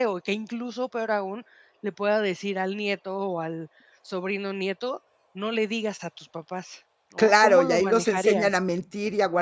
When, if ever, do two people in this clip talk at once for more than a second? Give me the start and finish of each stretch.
7.2-8.5

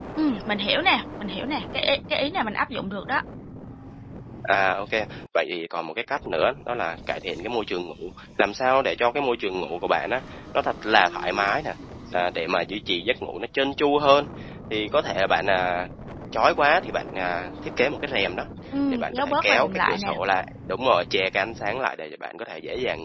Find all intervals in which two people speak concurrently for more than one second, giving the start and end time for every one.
18.9-20.1

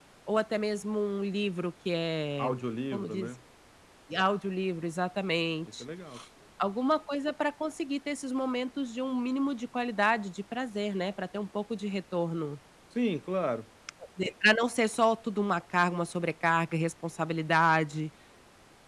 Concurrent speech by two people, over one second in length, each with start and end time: none

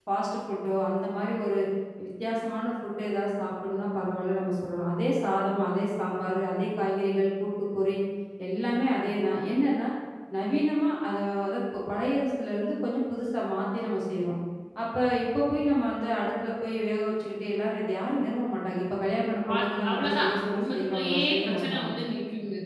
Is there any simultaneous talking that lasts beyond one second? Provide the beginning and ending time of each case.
19.6-21.9

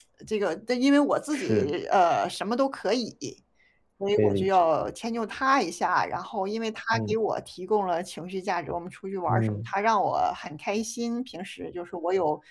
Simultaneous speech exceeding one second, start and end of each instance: none

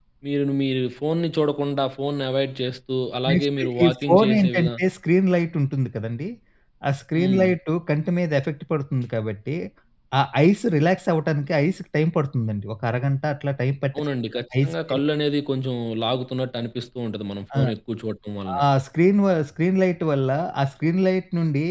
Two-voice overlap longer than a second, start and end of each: 3.3-4.7

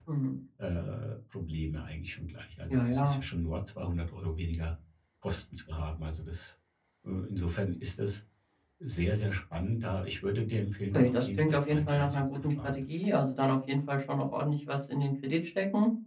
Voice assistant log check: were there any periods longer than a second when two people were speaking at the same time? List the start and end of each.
10.9-12.8

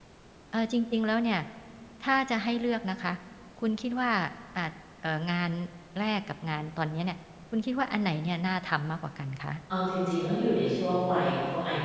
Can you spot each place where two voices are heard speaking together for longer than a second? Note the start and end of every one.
none

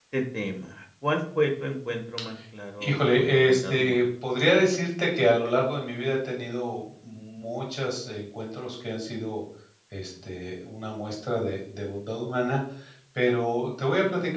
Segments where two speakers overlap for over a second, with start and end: 2.8-4.0

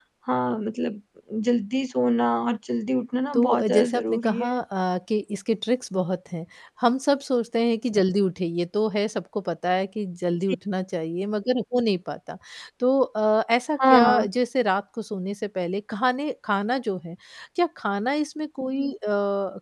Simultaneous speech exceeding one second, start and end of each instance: 3.3-4.6

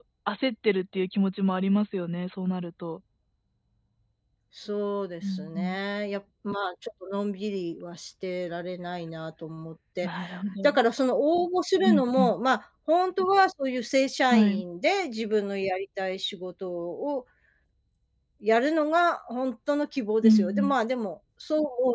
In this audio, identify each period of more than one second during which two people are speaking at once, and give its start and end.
none

